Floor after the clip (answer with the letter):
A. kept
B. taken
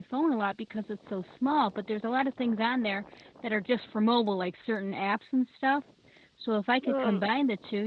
A